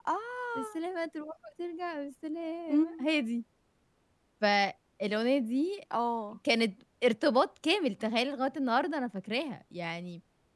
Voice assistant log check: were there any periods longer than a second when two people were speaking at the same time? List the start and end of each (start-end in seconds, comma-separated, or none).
none